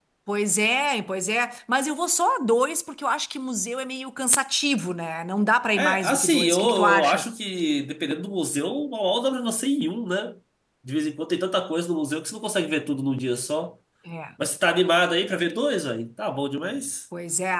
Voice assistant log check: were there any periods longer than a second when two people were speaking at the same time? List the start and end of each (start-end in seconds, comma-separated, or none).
5.8-7.2